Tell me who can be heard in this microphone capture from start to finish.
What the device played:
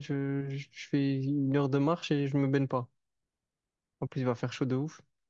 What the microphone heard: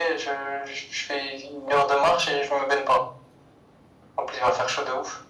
echo only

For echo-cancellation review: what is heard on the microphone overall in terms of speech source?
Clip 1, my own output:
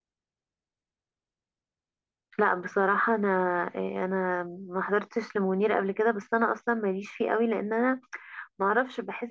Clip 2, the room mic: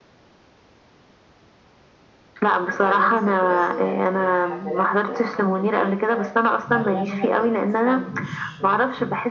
both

